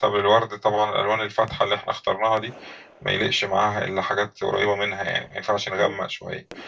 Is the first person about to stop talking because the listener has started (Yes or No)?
No